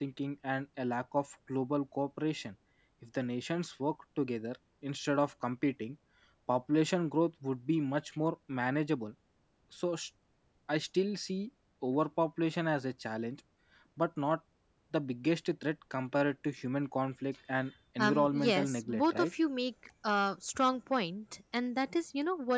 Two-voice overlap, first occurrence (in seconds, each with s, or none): 18.0 s